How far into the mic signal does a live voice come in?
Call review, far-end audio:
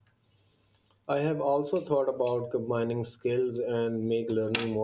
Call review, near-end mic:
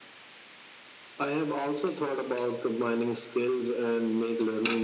none

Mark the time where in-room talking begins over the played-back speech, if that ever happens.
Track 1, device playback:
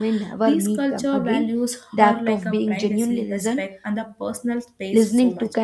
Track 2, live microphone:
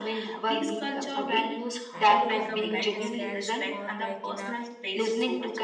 2 s

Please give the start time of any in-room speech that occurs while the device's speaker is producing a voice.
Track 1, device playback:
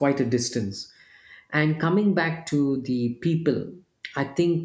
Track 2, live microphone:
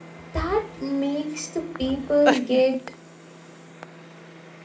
0 s

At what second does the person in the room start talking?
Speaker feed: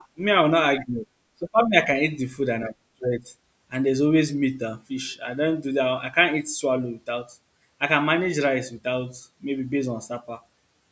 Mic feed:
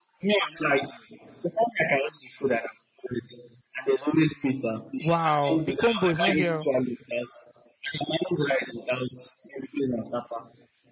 5 s

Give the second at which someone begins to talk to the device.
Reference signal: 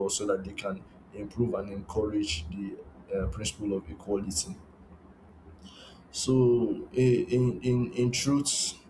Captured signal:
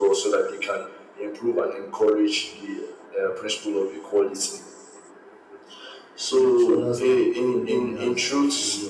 6 s

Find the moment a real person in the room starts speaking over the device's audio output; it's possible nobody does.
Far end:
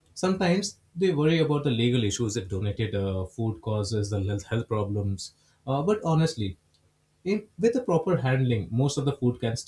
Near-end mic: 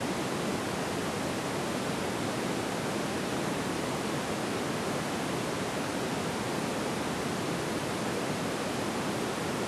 none

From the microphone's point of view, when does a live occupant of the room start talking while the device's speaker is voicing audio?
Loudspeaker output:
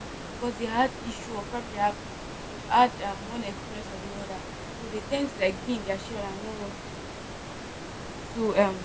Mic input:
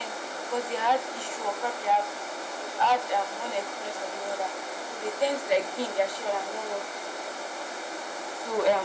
none

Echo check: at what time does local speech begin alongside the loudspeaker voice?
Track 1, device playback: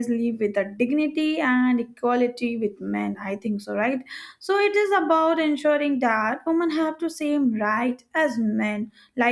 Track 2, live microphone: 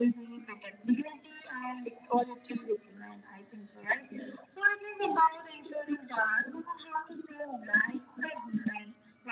none

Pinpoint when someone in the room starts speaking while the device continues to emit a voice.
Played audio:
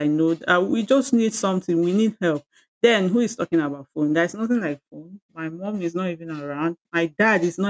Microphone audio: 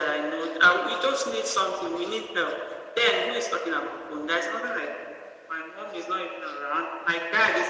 none

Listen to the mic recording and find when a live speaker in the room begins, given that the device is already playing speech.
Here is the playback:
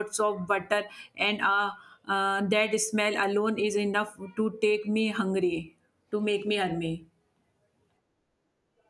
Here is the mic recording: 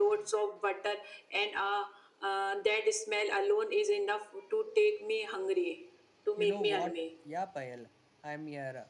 6 s

